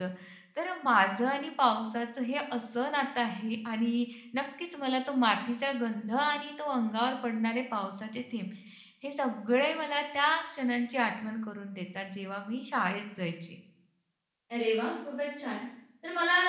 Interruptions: none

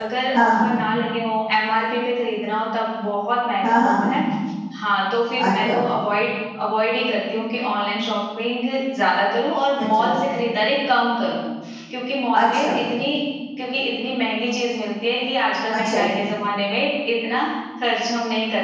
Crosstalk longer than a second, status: none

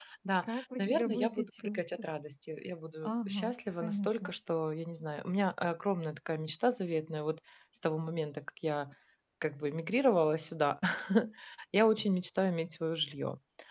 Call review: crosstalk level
present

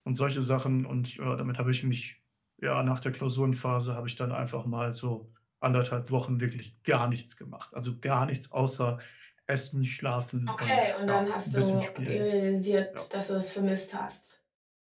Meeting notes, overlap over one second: present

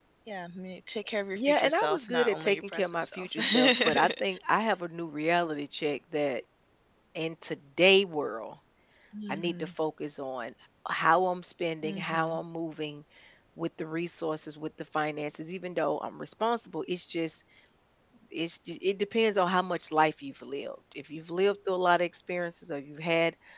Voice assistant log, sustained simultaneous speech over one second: present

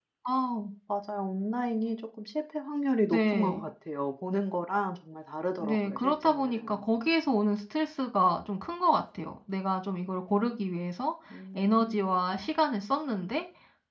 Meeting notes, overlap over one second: present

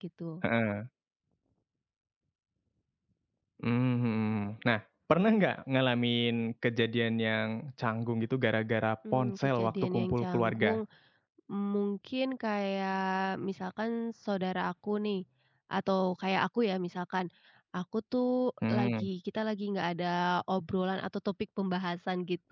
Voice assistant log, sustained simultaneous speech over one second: present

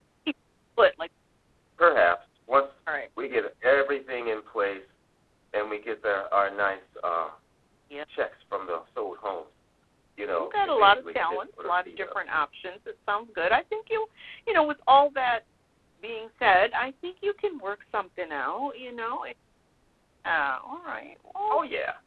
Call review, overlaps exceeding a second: present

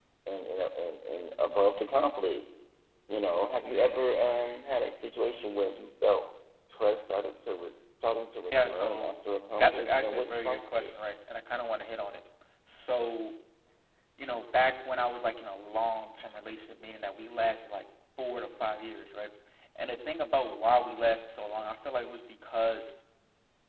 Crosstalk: present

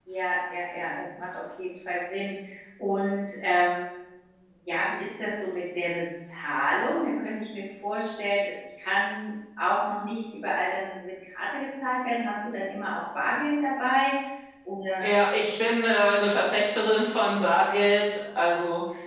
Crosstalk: none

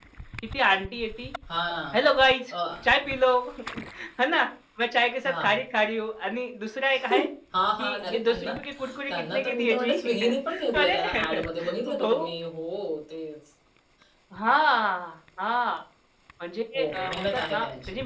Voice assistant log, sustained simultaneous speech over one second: present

